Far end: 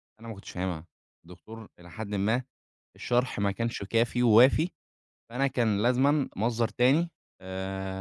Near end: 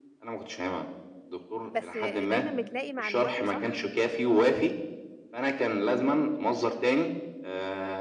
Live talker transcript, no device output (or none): بس دايمًا بتلاقي معلوماته صح؟